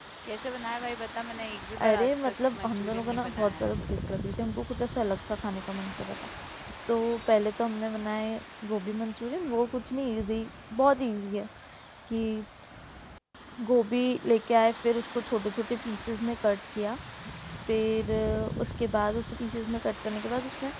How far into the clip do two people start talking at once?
1.8 s

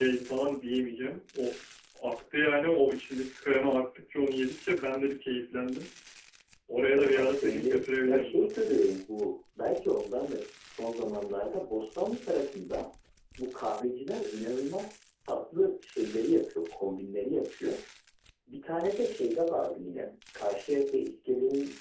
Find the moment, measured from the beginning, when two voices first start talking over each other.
6.9 s

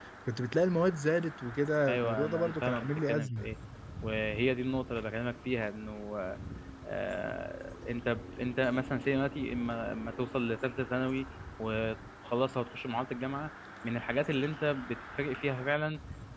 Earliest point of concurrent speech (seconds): 1.9 s

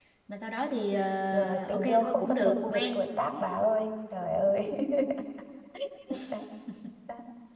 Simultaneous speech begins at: 1.3 s

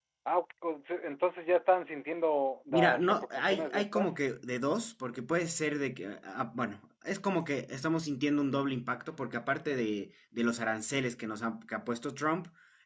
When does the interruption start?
2.7 s

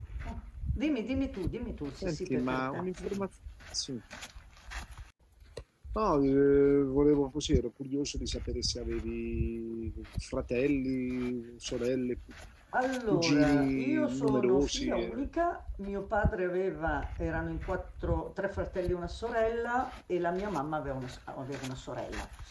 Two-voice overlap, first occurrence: 2.0 s

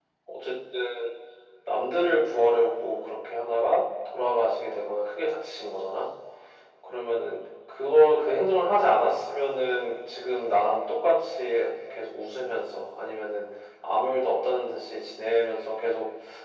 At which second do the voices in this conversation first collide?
none

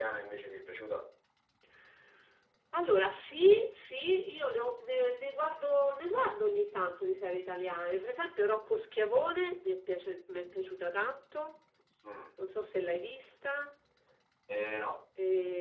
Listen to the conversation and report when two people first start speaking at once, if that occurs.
none

